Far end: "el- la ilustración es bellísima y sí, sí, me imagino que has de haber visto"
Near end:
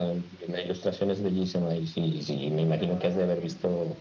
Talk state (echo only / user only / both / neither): both